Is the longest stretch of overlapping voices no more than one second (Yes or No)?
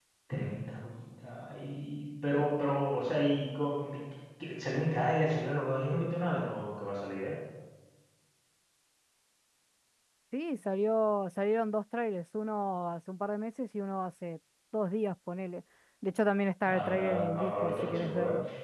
No